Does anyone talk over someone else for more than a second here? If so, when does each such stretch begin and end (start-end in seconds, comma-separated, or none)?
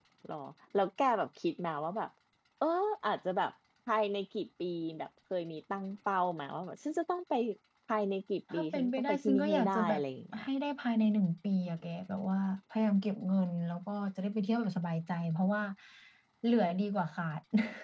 8.5-10.0